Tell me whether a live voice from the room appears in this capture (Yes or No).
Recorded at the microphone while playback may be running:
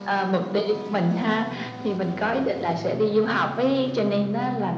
No